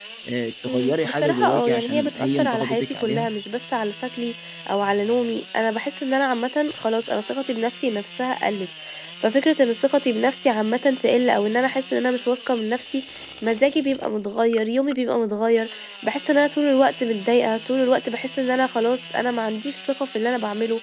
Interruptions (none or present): present